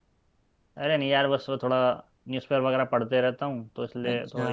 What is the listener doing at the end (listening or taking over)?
listening